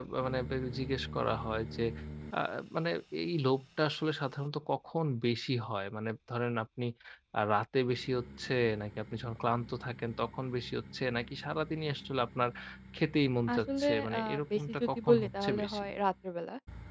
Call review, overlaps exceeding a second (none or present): present